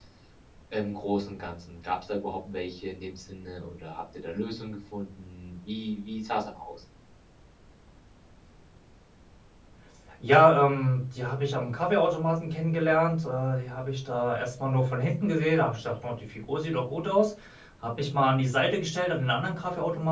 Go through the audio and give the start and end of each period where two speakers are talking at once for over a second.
none

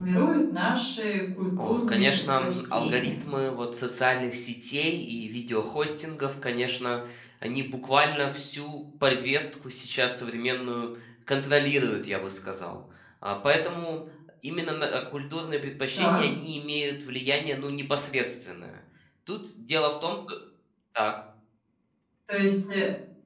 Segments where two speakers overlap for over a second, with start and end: 1.6-3.3

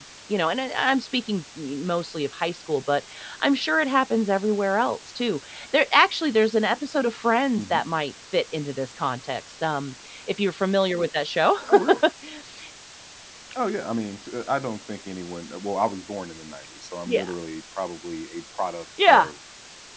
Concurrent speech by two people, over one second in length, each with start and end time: none

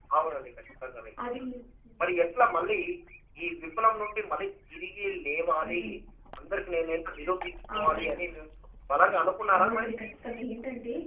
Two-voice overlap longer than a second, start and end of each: none

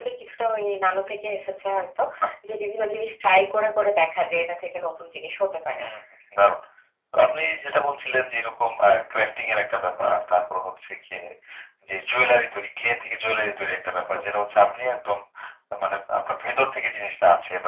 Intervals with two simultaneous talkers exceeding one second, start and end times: none

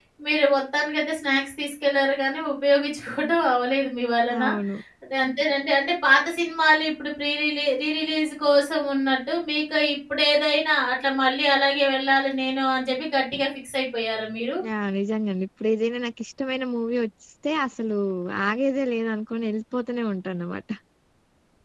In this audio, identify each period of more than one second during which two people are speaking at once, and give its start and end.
none

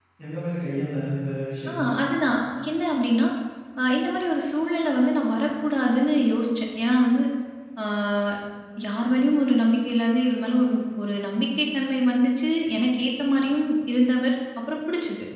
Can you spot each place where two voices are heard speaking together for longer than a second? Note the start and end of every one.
none

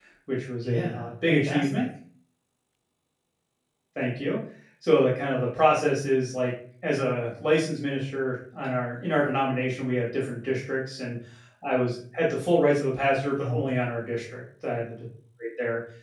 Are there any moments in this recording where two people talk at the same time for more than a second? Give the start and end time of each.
0.6-1.9

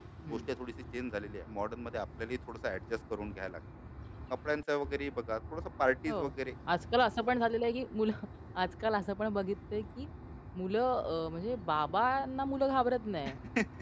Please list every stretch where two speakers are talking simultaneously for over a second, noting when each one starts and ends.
none

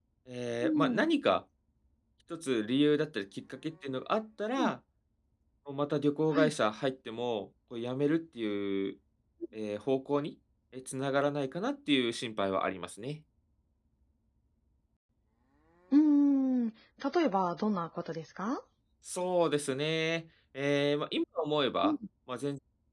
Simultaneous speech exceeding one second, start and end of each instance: none

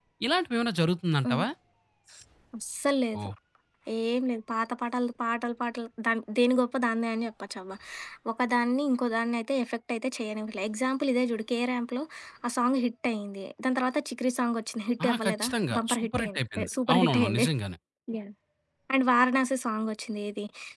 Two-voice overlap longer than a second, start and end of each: 15.0-17.5

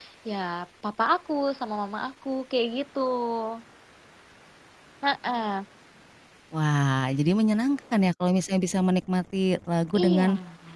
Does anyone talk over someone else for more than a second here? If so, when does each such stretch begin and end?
none

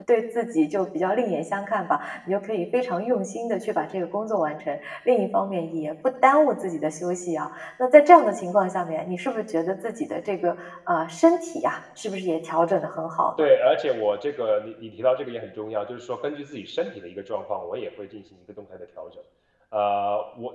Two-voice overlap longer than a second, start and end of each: none

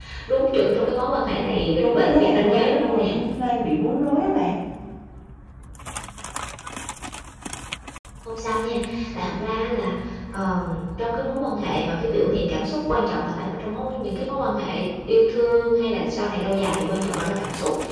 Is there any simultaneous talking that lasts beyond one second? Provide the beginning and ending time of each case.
1.8-3.0

